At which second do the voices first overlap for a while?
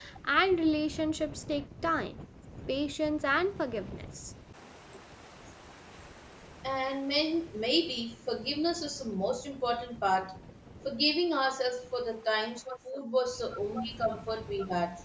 none

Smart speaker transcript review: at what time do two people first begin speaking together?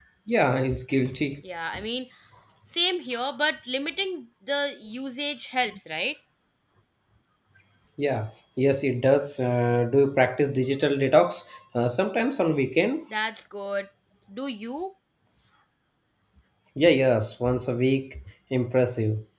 none

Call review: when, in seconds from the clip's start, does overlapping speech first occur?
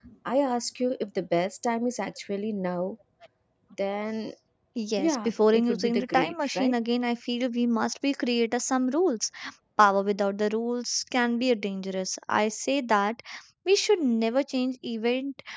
5 s

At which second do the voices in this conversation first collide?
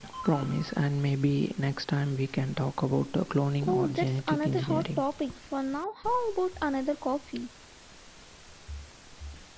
4 s

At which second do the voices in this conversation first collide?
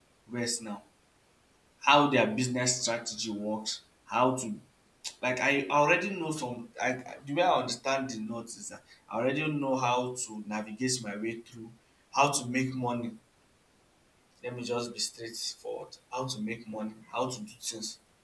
none

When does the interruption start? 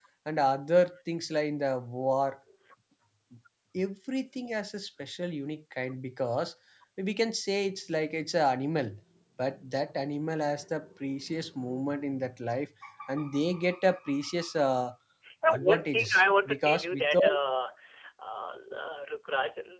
16 s

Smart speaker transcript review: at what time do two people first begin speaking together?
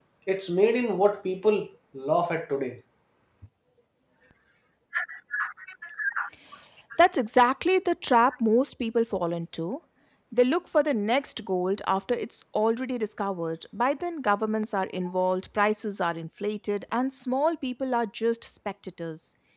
none

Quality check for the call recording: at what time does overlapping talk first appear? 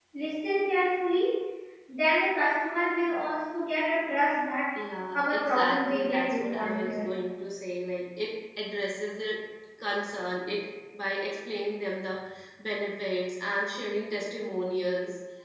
5 s

